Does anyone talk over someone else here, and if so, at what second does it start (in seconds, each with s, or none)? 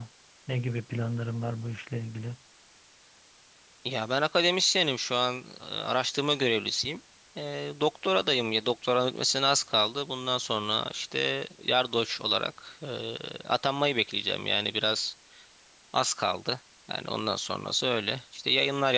none